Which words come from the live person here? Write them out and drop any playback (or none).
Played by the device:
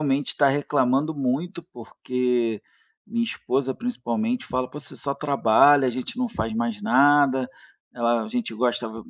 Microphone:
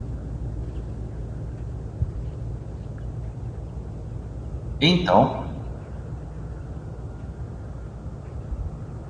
Então,